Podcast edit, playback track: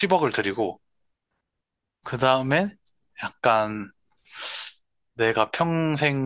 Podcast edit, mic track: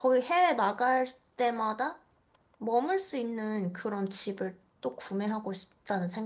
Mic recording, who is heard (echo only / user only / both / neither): user only